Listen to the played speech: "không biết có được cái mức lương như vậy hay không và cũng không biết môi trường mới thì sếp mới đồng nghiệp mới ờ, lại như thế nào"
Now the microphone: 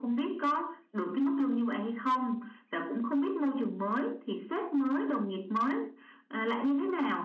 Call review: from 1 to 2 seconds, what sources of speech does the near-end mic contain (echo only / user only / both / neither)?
echo only